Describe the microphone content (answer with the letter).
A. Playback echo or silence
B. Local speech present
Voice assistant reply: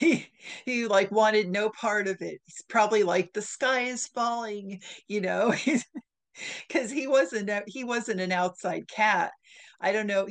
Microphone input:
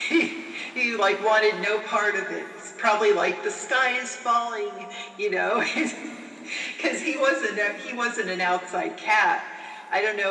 A